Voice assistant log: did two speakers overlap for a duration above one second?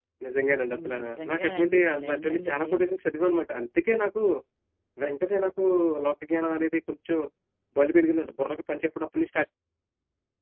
Yes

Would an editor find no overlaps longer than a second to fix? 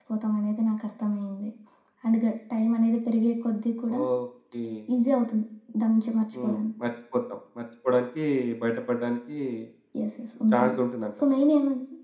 Yes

